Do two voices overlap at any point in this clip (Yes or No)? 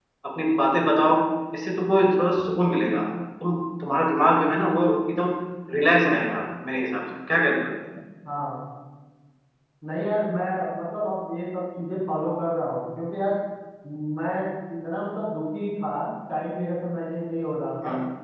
No